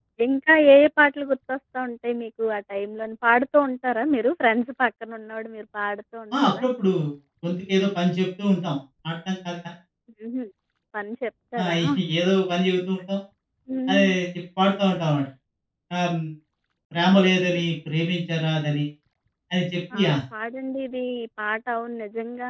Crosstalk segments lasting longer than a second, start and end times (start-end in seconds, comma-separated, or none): none